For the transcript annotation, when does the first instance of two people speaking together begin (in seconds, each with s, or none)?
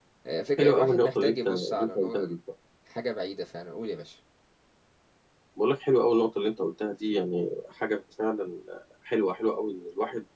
0.6 s